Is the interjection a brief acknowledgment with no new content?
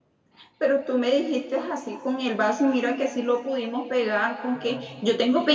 Yes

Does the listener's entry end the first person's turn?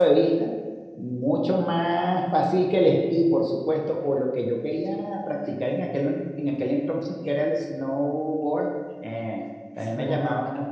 No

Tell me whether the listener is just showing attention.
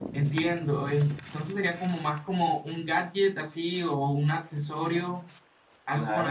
No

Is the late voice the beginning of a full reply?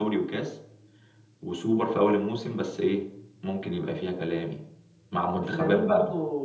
Yes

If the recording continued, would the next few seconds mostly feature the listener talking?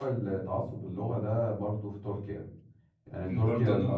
No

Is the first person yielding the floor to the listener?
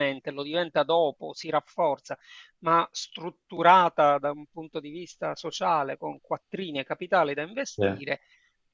No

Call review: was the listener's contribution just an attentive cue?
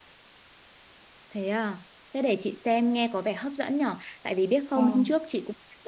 Yes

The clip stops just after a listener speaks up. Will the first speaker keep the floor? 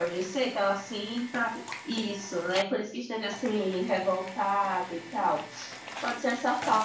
Yes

